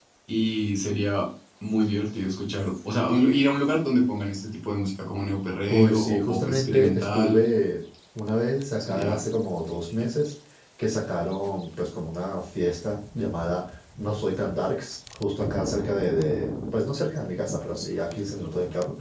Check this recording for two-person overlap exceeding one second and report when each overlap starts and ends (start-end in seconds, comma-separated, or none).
5.7-7.4